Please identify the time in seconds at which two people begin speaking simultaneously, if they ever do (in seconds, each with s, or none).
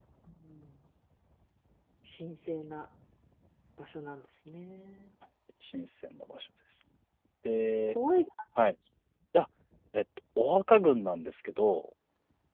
none